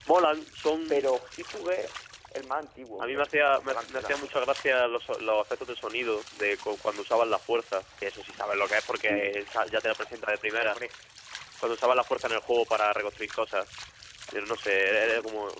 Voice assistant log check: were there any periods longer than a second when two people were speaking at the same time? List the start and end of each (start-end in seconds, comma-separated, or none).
3.0-4.4